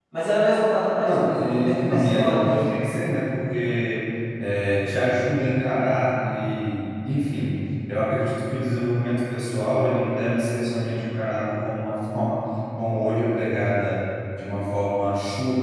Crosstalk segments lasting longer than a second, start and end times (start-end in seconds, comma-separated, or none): 1.0-2.7